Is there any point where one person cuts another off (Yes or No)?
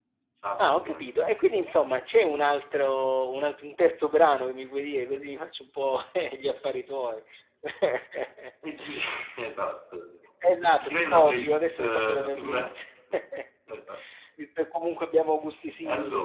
Yes